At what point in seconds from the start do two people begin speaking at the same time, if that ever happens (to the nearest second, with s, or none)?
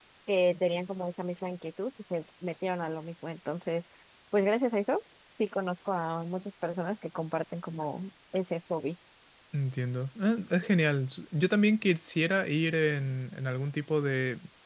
none